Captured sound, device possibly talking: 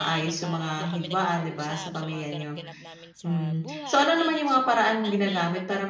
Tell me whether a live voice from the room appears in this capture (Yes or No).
Yes